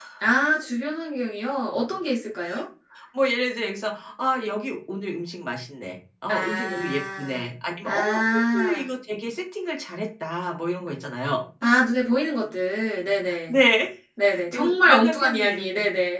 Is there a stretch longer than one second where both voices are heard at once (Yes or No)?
Yes